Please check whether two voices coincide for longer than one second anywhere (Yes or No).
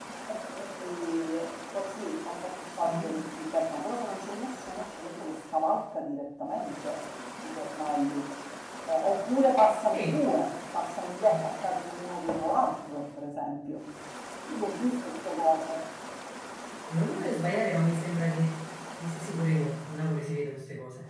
No